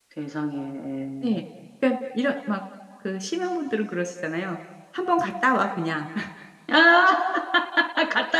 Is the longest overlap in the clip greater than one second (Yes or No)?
No